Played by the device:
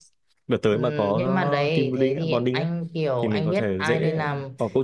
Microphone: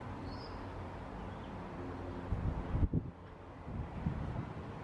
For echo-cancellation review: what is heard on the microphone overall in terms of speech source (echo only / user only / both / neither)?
neither